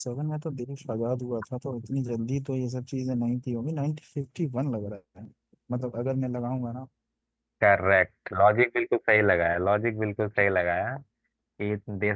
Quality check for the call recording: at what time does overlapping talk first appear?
none

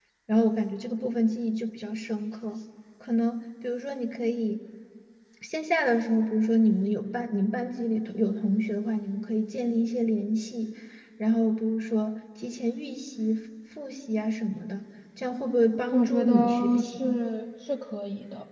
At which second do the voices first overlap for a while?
15.9 s

